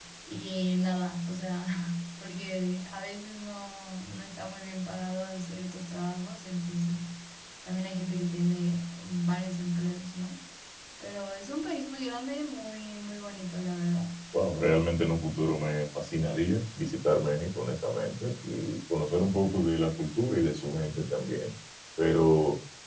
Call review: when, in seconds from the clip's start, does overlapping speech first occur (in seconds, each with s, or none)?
none